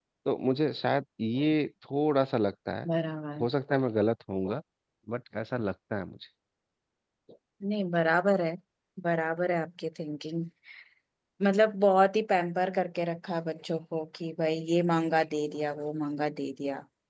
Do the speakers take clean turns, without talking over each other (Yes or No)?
Yes